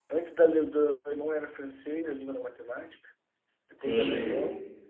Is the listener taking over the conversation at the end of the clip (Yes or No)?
No